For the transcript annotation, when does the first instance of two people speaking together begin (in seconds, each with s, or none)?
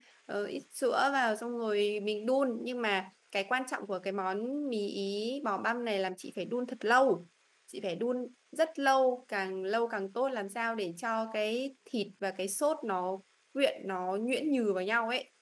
none